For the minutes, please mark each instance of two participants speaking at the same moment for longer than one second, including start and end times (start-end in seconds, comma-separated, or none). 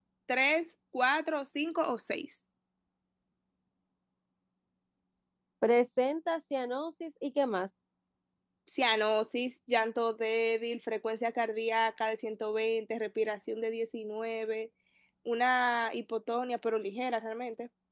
none